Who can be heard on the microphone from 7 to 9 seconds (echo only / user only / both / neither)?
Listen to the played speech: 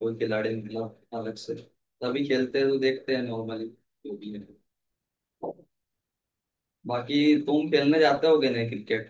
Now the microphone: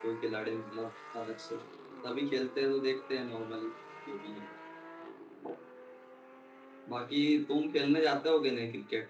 echo only